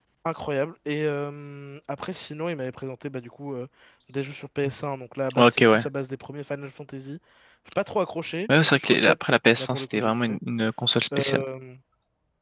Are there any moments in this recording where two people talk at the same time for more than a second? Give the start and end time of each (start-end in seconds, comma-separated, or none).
8.6-10.4